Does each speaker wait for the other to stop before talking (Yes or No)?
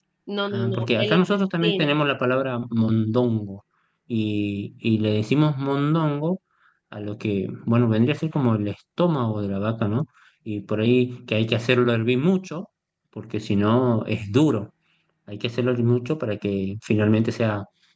No